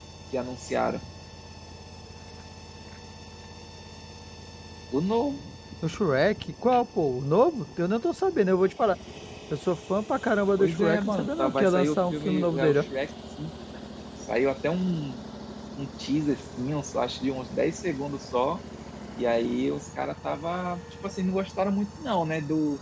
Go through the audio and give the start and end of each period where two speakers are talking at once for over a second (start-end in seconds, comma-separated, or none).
10.6-12.8